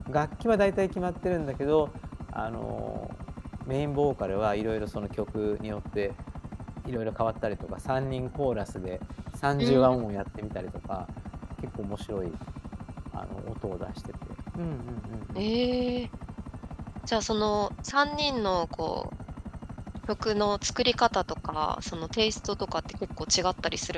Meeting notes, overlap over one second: none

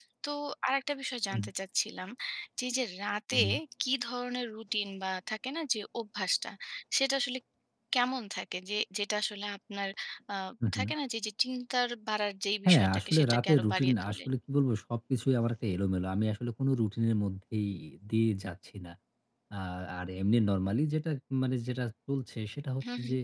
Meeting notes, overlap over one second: present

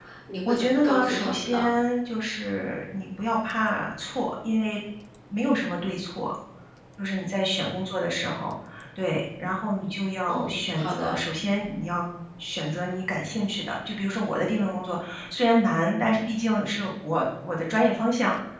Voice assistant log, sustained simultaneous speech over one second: present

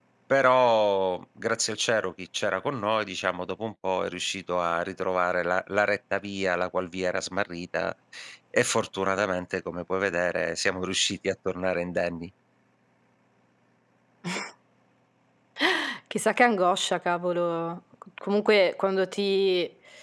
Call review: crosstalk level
none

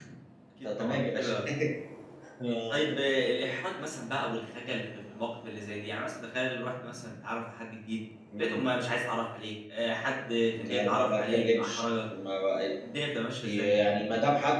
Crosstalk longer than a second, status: present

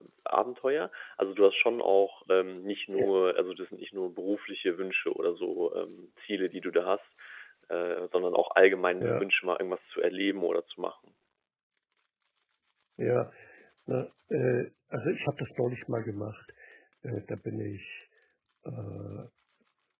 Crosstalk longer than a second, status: none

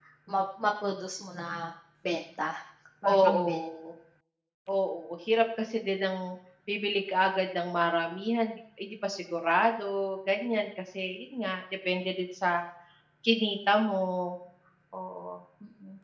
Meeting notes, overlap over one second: none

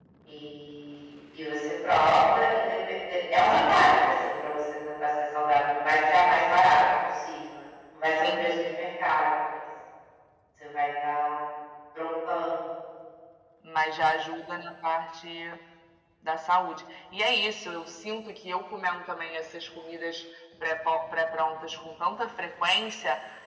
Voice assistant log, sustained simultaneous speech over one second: none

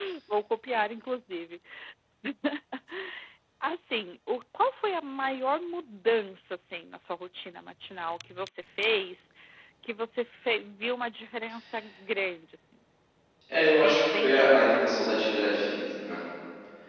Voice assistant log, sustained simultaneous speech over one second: present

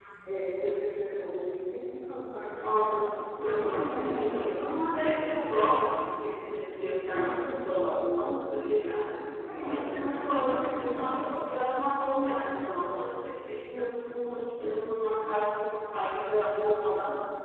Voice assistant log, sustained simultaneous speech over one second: present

